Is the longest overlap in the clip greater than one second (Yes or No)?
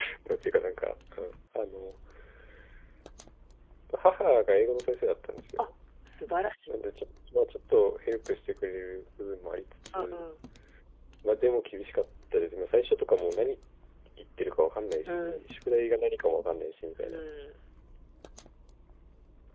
No